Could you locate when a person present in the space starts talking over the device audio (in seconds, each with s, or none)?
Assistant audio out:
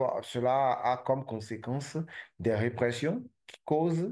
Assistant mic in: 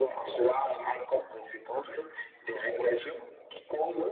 none